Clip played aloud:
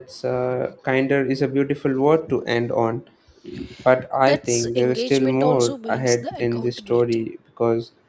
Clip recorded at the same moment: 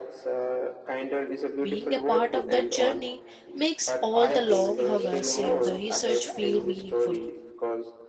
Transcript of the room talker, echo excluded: Being a part of that journey makes all the long hours in the research feel meaningful.

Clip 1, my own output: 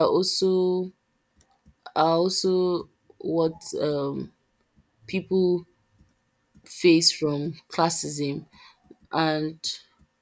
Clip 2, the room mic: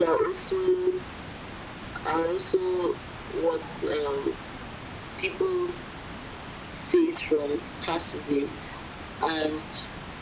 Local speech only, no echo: none

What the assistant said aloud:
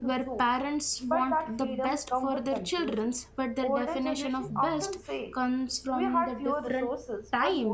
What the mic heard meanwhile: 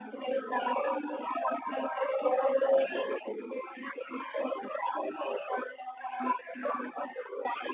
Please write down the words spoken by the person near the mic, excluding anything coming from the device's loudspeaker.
none

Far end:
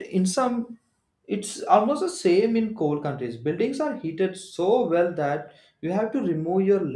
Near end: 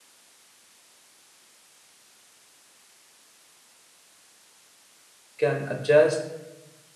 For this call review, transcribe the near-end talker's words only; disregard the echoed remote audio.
can adjust

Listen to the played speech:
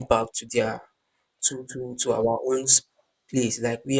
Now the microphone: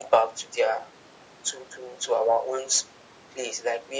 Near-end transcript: none

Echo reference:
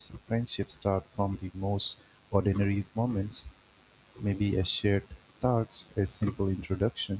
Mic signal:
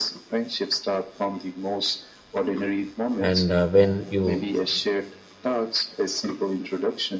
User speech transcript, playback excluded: and uh, when you

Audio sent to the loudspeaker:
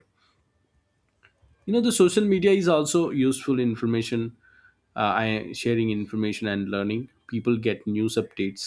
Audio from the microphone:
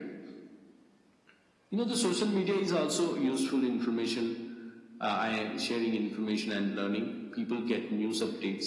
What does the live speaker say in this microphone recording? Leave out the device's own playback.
none

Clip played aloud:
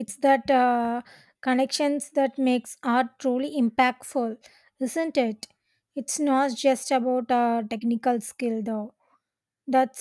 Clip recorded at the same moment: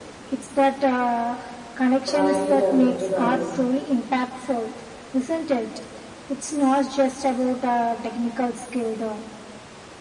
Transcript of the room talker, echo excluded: Pride and Prejudice,

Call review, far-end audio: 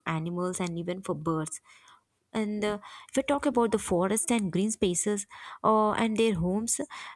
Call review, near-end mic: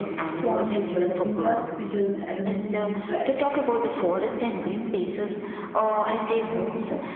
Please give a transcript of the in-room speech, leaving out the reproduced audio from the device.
for nature, India's future will automatically be bright.

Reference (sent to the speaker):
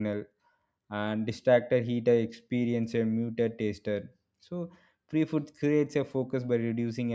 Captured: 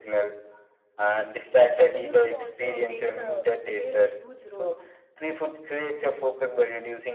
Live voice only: your evolution also takes a plays a huge role

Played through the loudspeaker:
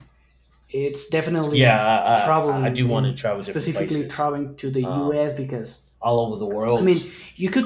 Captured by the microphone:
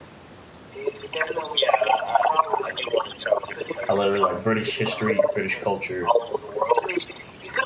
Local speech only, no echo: I really like British history, British culture.

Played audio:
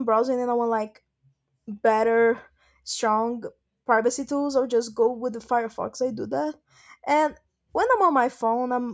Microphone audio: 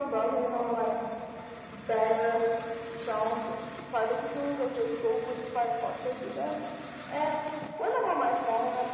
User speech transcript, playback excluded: none

